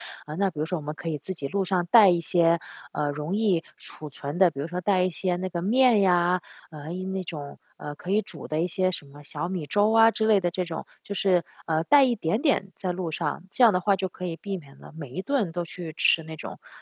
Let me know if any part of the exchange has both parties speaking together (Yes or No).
No